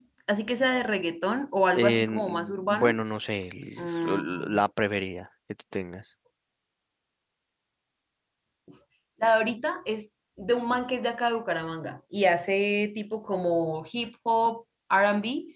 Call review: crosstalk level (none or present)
present